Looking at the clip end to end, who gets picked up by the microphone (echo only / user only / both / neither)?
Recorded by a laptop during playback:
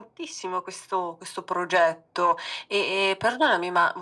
echo only